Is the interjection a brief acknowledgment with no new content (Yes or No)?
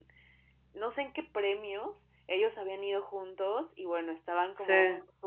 Yes